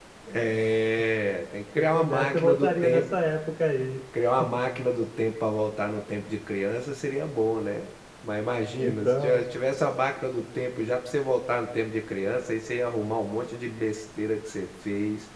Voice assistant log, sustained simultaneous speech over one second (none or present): present